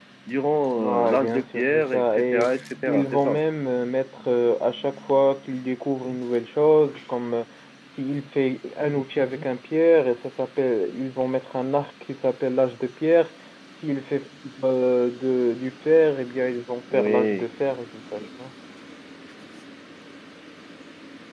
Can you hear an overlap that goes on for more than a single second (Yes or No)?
Yes